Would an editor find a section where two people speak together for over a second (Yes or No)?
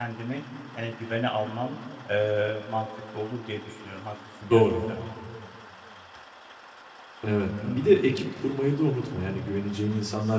No